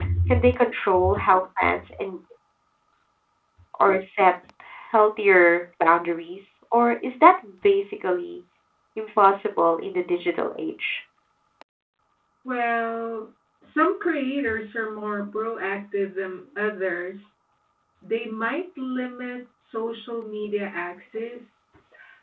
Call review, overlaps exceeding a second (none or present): none